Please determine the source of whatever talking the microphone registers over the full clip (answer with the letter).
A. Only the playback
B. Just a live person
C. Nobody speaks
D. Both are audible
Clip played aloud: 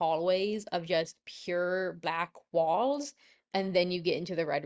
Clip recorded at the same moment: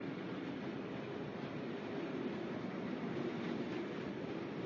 C